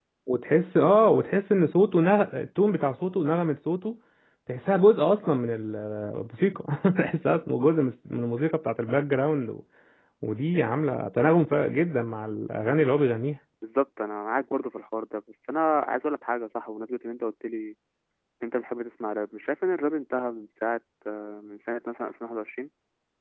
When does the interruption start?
none

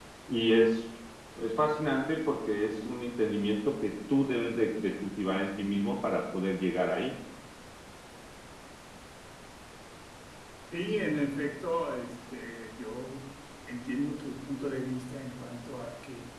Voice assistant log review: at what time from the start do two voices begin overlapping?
none

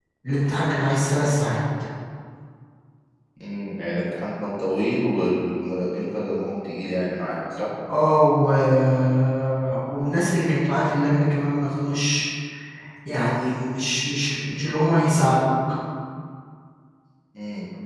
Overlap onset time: none

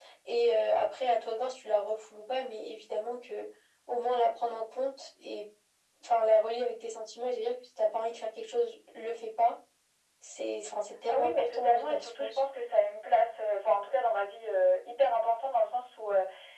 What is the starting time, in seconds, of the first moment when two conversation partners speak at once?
11 s

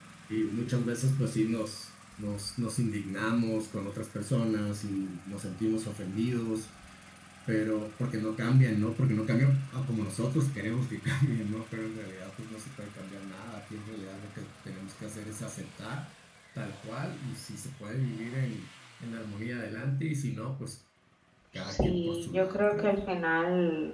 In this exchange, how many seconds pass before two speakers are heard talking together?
22 s

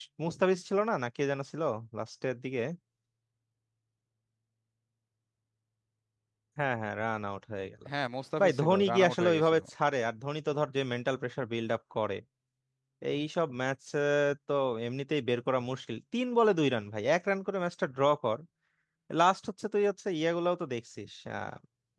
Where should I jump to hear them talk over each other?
8 s

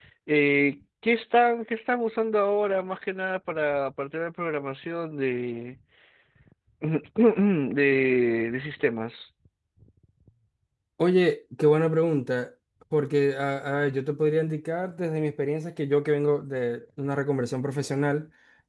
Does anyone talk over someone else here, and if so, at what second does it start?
none

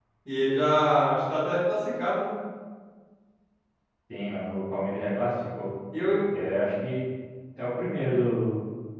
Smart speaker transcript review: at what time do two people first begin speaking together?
none

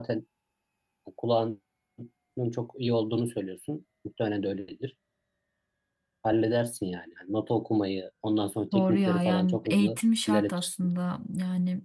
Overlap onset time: 9 s

